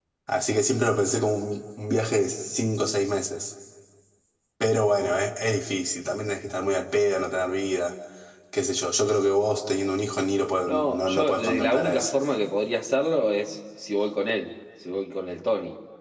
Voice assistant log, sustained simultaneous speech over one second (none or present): present